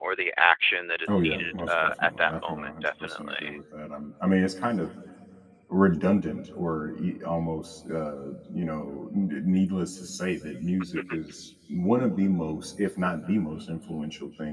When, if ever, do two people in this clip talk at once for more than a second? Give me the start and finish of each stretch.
1.1-3.6

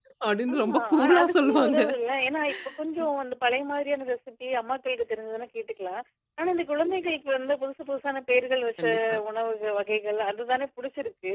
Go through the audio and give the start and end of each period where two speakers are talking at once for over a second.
0.5-1.8

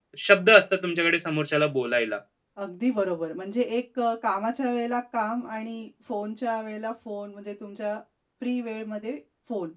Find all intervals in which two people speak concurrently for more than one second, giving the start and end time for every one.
none

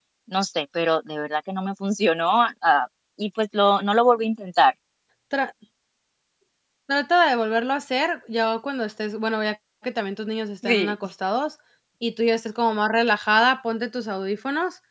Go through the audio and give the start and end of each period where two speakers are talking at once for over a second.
none

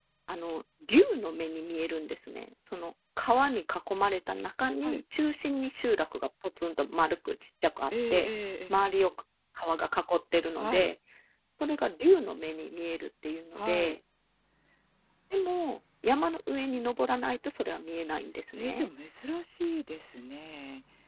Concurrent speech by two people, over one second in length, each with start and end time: none

